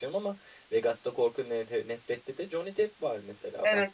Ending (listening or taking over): taking over